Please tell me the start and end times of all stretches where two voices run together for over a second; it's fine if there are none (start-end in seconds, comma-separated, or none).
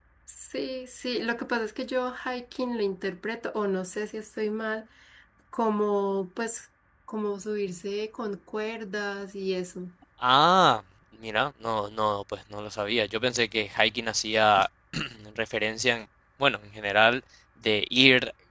none